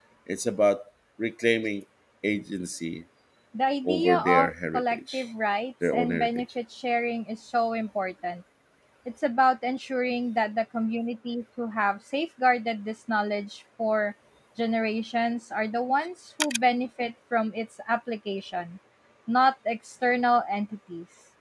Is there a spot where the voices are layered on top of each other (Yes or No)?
Yes